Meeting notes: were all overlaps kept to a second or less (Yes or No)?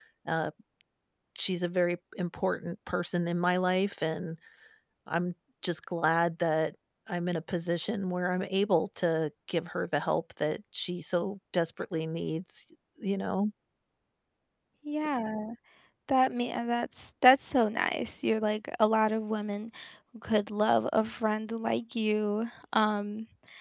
Yes